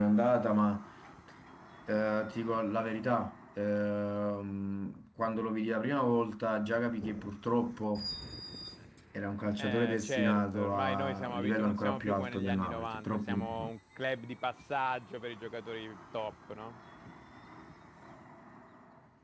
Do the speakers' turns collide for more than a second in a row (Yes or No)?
Yes